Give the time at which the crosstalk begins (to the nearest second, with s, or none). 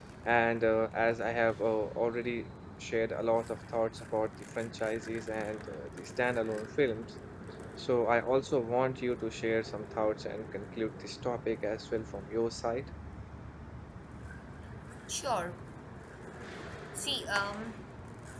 none